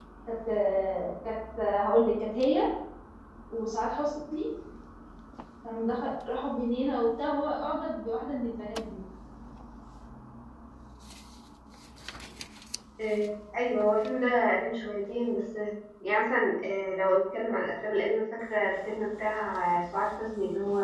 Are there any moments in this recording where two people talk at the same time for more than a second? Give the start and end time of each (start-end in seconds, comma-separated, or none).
none